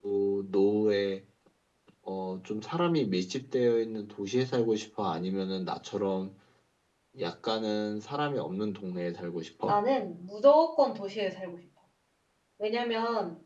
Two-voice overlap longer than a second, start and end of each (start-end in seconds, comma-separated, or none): none